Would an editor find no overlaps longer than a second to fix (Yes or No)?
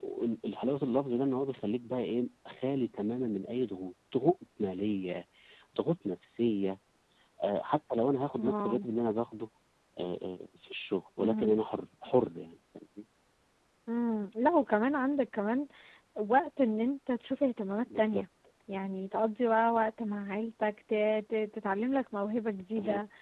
Yes